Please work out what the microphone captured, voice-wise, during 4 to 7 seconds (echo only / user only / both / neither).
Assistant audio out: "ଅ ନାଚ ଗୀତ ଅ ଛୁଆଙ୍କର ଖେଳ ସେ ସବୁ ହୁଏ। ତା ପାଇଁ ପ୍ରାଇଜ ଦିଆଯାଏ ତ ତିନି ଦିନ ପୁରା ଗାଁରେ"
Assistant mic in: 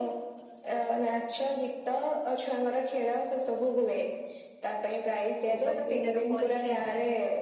both